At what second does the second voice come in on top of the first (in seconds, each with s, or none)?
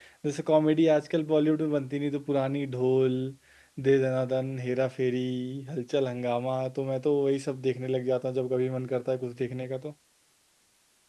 none